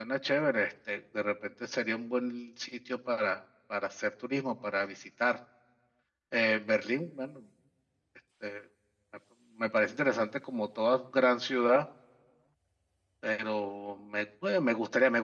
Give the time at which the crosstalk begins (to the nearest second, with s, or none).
none